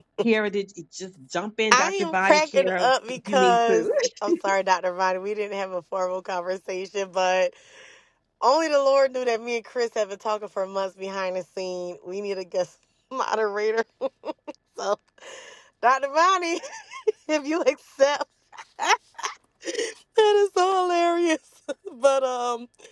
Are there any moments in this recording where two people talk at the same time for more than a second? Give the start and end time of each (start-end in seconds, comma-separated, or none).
1.7-3.9